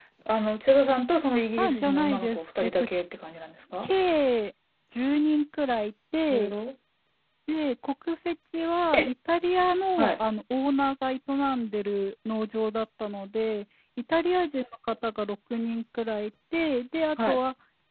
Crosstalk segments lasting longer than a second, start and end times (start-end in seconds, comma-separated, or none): 1.6-2.9